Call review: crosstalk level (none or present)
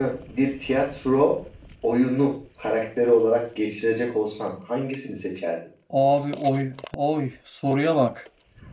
none